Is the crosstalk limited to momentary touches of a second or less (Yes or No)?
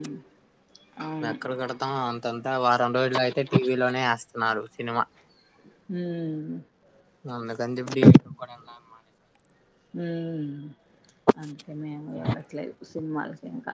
Yes